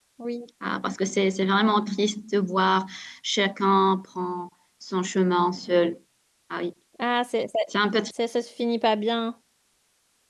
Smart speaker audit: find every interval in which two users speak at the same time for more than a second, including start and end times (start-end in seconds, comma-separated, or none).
none